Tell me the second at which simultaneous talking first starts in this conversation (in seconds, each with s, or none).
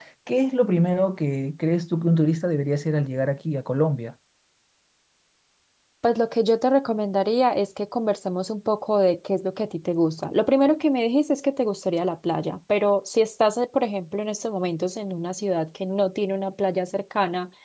none